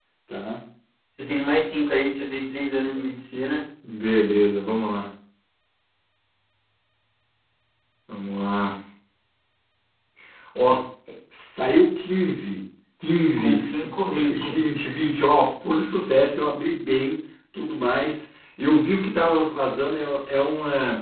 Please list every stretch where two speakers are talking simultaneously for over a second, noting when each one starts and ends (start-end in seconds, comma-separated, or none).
13.4-14.6